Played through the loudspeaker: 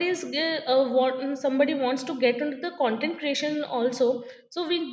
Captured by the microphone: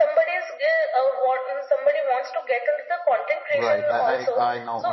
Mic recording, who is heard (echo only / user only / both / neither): both